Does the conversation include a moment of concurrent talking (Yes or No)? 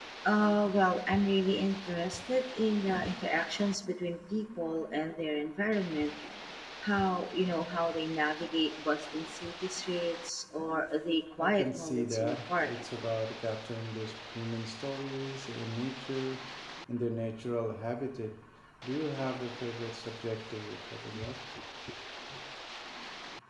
Yes